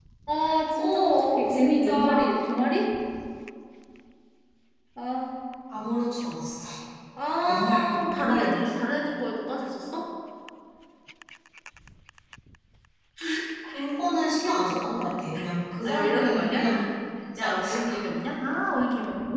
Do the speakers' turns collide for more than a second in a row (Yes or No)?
Yes